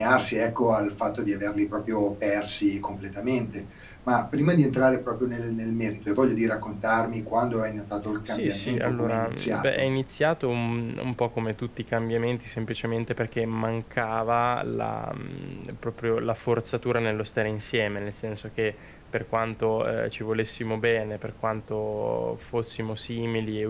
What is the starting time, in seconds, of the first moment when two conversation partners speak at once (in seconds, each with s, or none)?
8.3 s